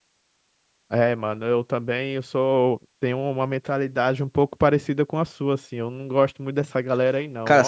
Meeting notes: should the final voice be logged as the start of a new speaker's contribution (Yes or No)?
Yes